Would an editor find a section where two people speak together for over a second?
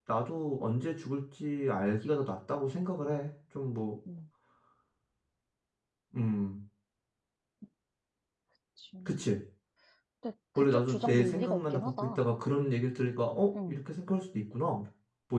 Yes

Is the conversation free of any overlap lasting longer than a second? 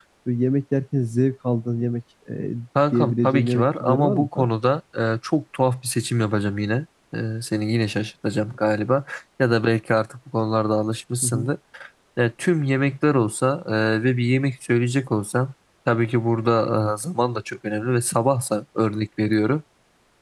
No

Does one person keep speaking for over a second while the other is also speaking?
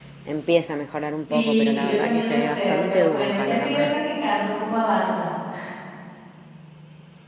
Yes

